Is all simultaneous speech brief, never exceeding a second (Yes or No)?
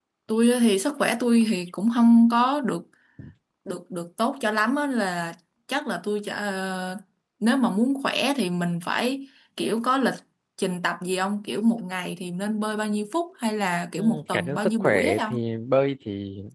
No